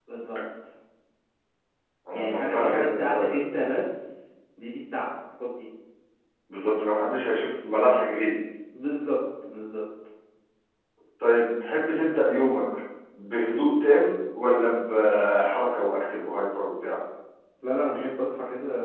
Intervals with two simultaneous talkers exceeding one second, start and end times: 2.1-3.4

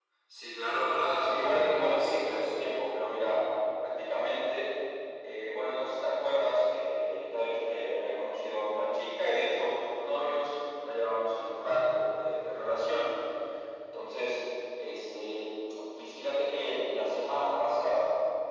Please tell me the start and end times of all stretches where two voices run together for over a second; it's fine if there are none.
1.2-2.5

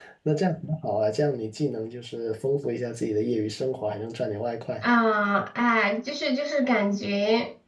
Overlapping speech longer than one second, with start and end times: none

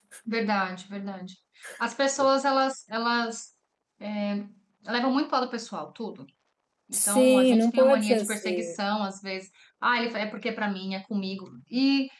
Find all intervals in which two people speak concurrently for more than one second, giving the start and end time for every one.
6.9-8.8

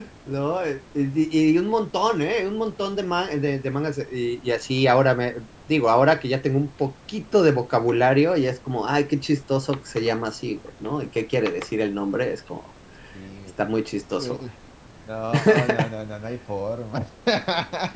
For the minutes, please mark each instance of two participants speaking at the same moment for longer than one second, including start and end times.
none

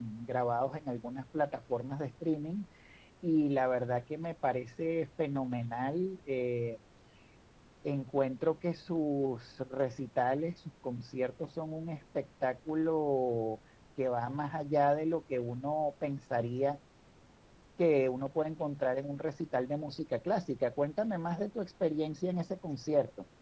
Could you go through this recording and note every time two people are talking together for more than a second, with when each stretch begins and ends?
none

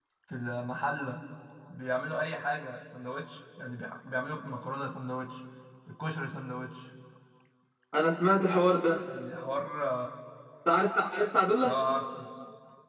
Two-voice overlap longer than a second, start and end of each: none

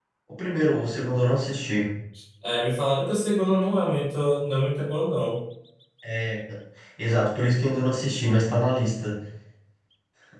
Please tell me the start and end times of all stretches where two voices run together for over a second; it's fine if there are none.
none

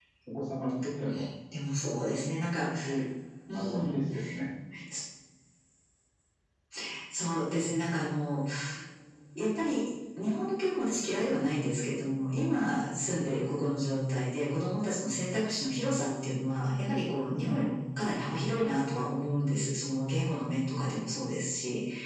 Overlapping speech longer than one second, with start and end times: none

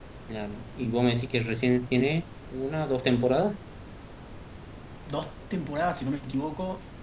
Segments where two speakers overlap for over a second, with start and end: none

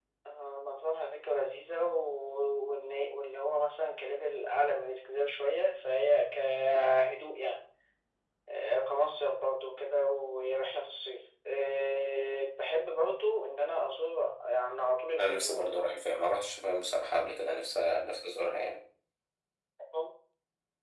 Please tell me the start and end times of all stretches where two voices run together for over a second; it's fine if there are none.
none

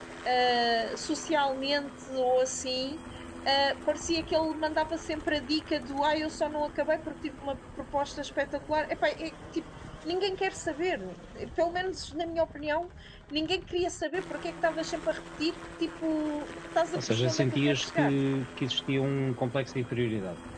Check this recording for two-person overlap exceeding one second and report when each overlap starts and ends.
16.9-18.2

